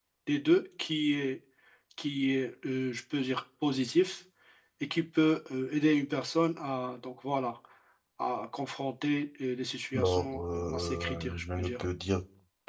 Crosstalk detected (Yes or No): Yes